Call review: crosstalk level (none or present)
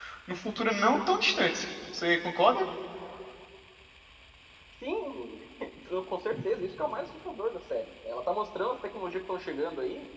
none